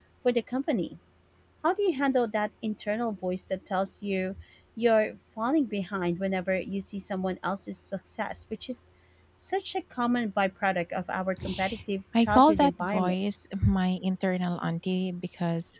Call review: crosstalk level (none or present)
present